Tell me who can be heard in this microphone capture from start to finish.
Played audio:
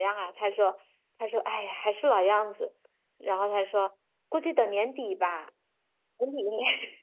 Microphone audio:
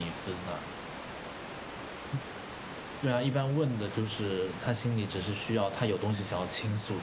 user only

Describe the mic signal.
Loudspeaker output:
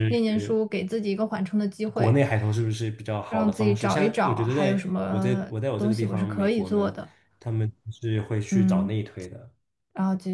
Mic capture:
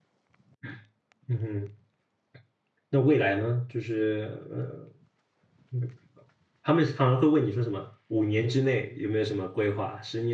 user only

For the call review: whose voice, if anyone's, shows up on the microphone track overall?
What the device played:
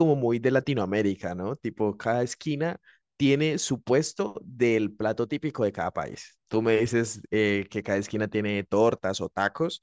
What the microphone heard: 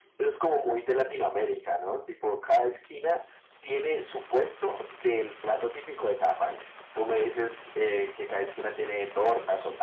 echo only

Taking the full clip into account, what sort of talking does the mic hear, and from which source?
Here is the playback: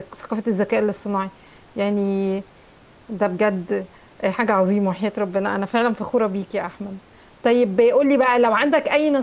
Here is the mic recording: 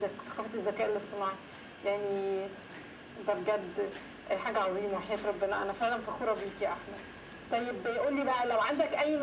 echo only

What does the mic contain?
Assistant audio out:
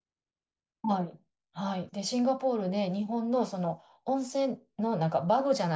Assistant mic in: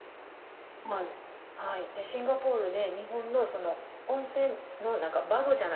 echo only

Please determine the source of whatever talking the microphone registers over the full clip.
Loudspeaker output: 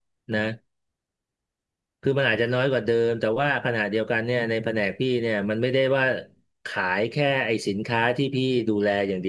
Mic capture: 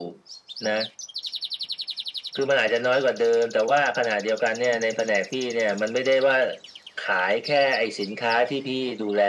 echo only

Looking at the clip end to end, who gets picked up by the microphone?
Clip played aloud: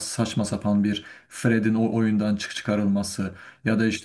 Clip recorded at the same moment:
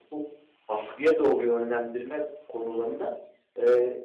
user only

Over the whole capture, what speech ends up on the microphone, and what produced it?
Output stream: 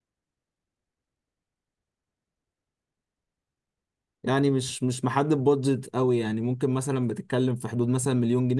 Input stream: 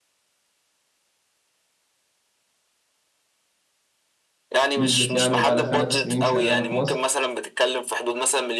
both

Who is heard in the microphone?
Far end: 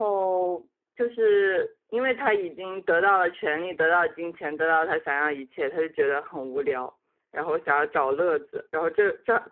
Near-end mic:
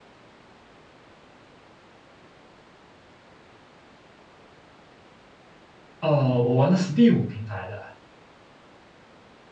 user only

